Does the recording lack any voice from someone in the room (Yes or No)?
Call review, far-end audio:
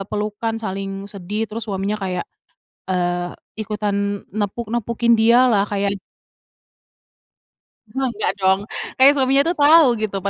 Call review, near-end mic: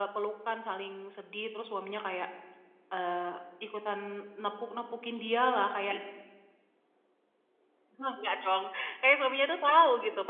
Yes